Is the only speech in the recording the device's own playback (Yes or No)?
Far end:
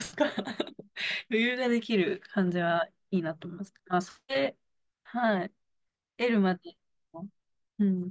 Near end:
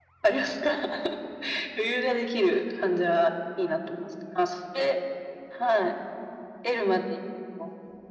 Yes